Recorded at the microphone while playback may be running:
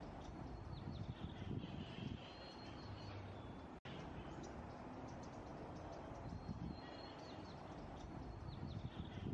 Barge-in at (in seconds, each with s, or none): none